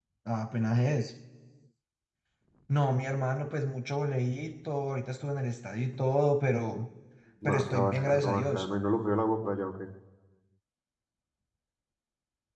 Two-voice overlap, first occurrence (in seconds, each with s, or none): 7.4 s